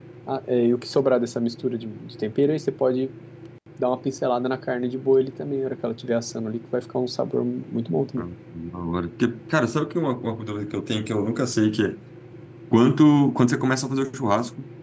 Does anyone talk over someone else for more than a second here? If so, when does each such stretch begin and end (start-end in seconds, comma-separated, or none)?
none